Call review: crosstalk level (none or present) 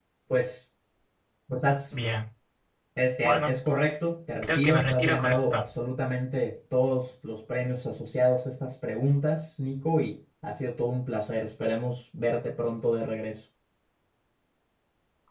present